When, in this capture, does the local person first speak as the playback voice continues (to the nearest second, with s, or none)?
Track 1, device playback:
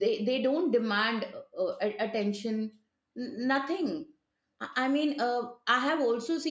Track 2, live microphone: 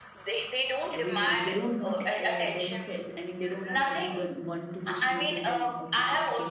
1 s